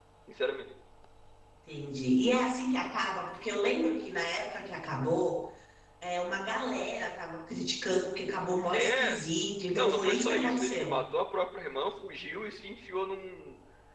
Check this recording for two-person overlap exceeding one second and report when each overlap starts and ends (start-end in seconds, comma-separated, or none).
9.7-11.0